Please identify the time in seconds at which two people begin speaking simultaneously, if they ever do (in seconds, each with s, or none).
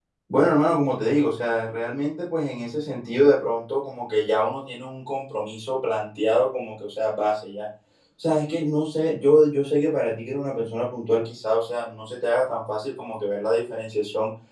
none